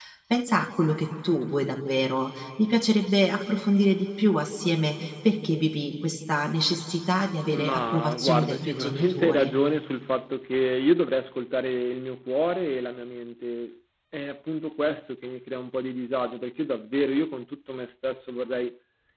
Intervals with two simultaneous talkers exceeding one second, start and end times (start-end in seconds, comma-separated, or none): 7.5-9.5